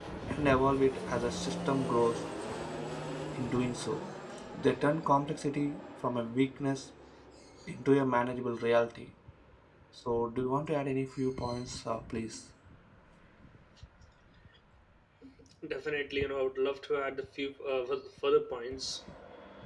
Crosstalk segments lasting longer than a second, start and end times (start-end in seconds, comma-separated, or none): none